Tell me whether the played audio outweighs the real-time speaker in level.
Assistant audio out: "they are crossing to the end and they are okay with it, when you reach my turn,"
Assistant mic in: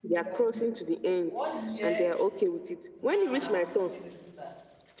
Yes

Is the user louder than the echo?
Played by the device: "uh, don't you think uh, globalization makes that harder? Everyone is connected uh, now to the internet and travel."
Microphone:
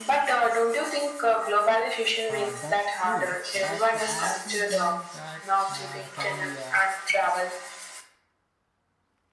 No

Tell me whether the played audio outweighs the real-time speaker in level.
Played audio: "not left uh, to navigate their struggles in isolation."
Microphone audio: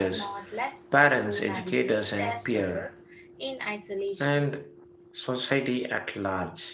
No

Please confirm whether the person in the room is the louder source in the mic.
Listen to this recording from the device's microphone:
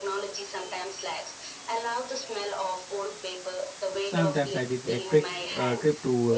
Yes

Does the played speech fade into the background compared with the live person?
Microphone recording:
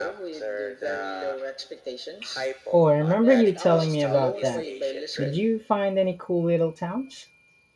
Yes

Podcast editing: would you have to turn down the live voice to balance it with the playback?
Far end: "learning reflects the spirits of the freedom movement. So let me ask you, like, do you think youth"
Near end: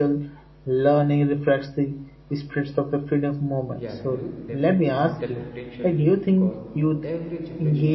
No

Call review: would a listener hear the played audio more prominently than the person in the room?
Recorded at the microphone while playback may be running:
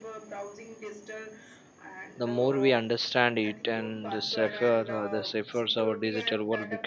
No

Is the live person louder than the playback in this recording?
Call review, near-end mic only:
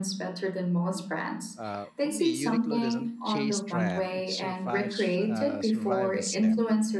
No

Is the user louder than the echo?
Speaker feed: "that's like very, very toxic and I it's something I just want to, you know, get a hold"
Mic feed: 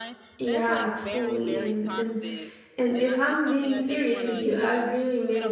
Yes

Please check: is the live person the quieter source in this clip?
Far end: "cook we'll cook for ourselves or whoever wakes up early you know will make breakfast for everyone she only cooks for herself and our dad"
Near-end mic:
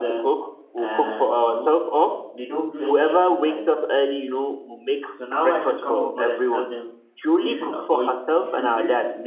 Yes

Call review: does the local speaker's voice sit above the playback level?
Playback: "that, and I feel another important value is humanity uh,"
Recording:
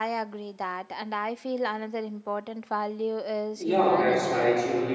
Yes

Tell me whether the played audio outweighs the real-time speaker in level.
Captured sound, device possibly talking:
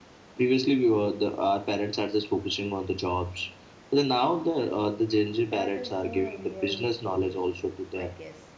Yes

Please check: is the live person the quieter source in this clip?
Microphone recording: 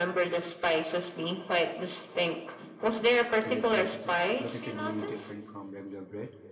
Yes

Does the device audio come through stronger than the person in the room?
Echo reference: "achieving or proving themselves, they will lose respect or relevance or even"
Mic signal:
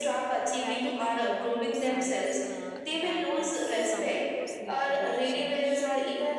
Yes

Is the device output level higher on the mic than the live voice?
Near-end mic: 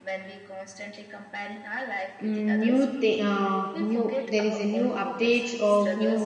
No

